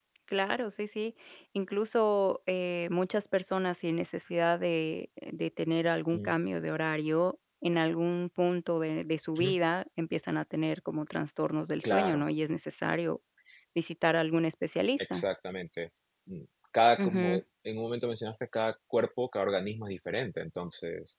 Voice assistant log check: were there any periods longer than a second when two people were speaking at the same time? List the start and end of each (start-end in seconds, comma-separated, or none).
none